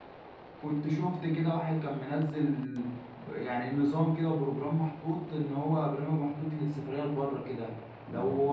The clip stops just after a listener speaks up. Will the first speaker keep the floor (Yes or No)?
Yes